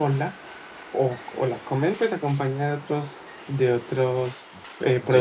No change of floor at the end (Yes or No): No